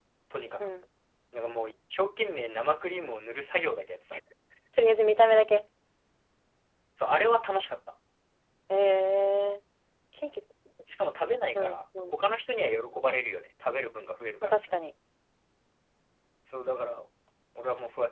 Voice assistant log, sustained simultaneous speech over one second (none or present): none